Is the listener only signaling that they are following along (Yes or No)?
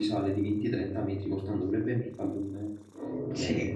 No